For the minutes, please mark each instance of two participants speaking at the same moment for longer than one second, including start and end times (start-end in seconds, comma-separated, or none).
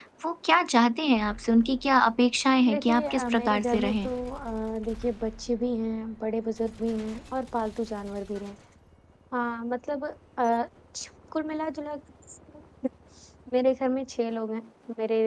2.7-4.1